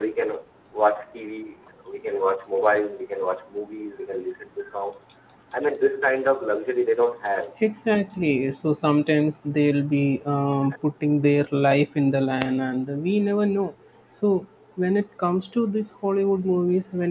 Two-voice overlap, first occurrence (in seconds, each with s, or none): none